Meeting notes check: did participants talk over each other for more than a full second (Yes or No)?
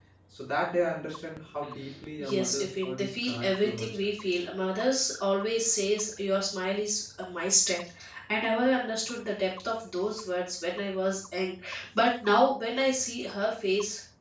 Yes